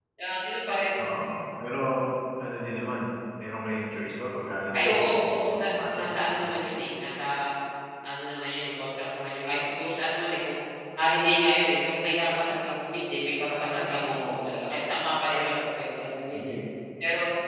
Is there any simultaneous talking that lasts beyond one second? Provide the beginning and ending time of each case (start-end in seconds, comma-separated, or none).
4.7-6.5